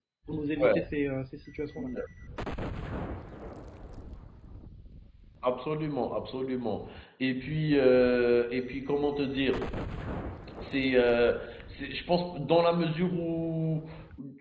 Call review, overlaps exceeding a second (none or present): none